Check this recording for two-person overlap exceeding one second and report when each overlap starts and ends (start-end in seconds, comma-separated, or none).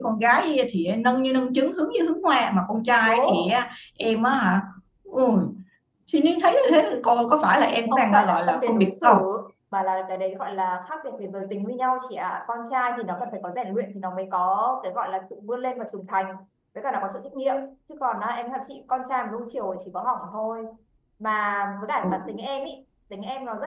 7.9-9.2